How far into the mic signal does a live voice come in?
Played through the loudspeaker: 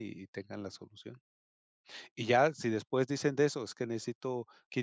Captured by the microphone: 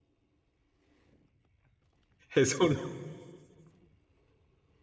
2.3 s

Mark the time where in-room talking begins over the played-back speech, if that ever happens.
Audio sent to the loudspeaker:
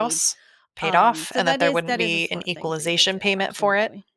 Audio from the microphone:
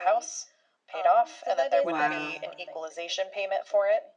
1.8 s

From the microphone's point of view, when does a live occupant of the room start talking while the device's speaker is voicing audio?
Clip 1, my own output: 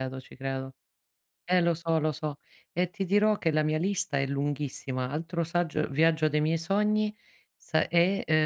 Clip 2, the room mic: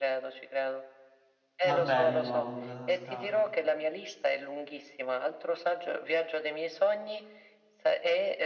1.6 s

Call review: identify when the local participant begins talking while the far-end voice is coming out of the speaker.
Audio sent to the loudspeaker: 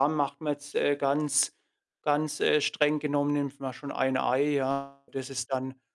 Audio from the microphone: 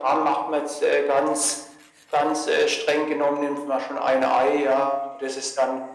none

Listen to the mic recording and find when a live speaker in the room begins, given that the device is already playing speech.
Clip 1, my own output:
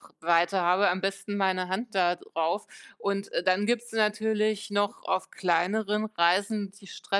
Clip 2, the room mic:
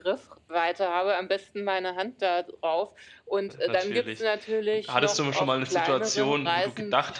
3.5 s

